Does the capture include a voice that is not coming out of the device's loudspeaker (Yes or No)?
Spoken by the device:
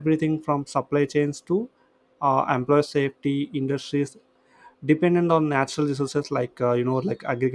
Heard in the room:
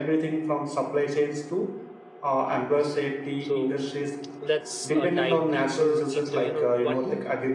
Yes